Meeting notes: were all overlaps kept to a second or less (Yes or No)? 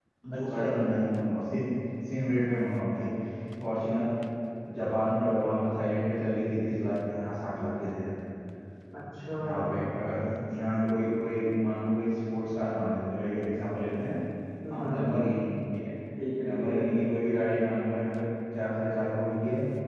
Yes